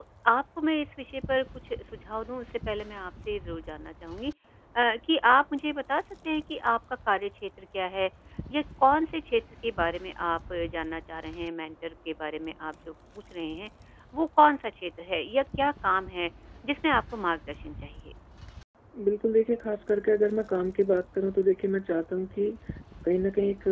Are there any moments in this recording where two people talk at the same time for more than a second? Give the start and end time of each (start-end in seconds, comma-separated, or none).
none